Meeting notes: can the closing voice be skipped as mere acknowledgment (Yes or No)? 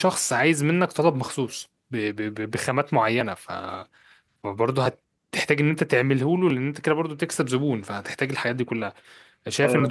Yes